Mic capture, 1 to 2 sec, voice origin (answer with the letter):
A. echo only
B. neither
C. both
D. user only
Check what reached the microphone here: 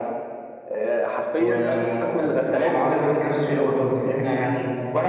C